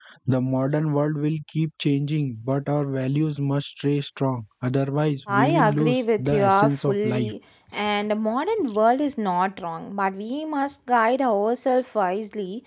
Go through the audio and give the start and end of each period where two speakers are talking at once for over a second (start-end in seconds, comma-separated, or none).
5.3-7.3